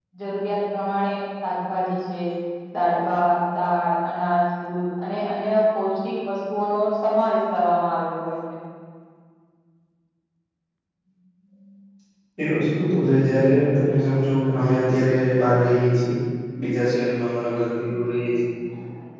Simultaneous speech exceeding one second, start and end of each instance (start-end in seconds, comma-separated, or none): none